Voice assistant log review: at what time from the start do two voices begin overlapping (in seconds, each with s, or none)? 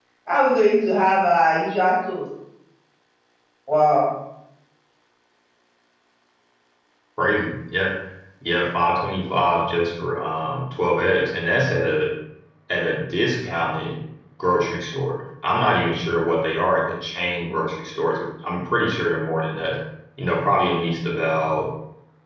none